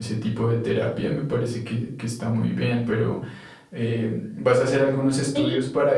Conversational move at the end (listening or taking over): listening